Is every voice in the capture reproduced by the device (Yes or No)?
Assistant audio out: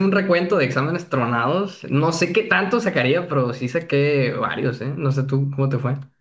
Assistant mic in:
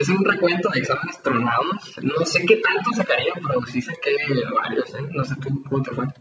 Yes